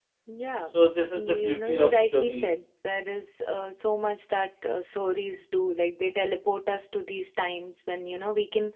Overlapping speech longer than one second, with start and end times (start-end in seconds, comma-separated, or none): 1.1-2.5